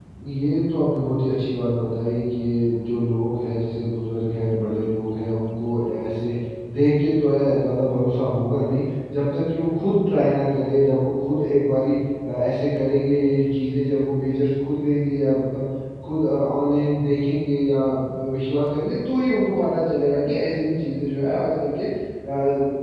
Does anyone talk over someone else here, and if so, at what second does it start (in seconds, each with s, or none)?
none